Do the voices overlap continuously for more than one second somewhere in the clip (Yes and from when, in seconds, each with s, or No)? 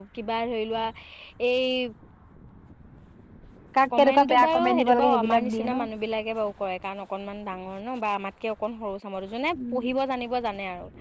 Yes, from 4.0 s